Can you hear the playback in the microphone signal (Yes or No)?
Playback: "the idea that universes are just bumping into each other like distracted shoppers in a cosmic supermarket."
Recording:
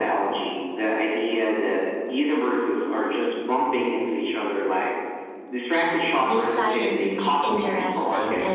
Yes